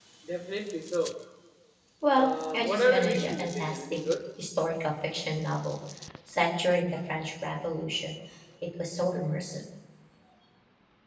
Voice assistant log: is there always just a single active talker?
No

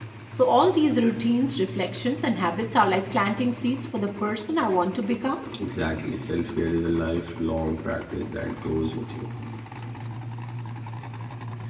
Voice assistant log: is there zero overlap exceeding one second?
Yes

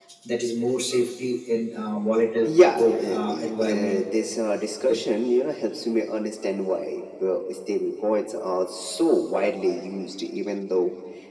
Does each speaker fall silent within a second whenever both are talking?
No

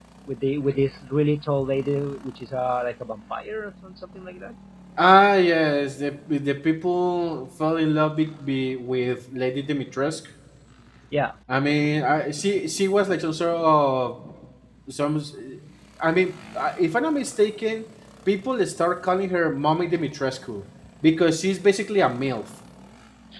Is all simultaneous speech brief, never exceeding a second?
Yes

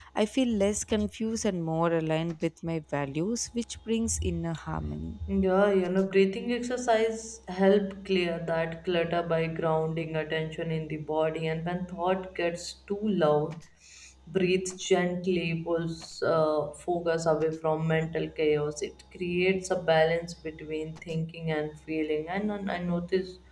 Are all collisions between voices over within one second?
Yes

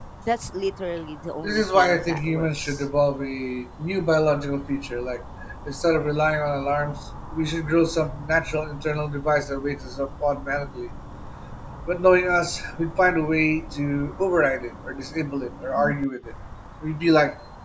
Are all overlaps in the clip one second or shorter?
No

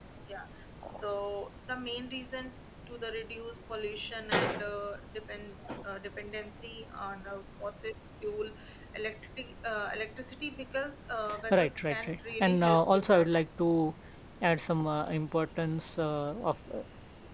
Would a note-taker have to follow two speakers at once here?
Yes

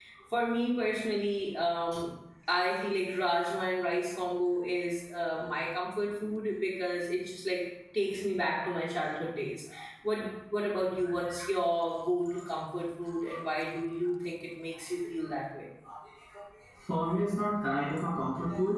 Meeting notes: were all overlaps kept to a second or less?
Yes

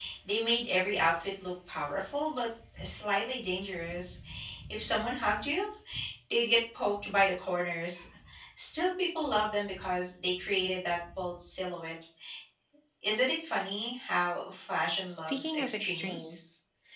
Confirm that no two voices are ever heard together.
No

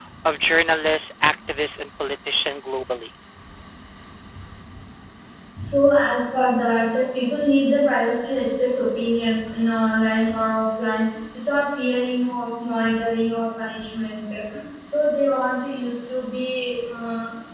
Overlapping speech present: No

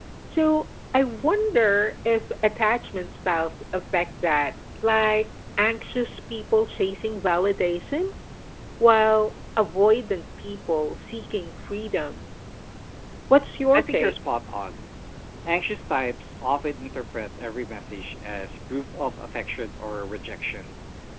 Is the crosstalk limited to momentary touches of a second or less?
Yes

